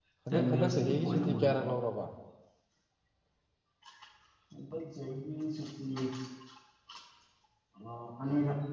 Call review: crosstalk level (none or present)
present